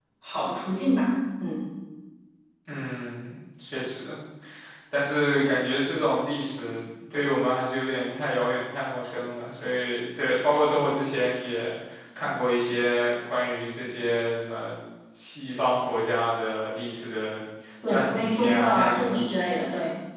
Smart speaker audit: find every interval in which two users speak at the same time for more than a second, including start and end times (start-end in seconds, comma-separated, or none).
17.9-19.2